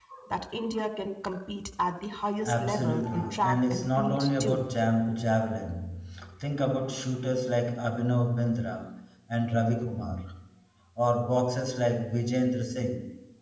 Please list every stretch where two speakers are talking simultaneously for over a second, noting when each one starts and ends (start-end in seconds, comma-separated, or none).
2.4-4.6